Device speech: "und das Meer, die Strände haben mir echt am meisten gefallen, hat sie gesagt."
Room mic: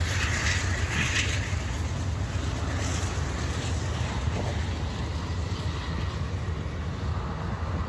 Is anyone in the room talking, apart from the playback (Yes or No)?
No